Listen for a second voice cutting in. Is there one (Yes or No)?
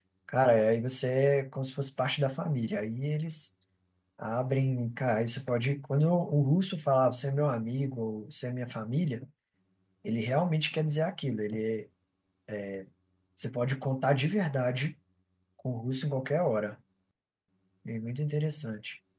No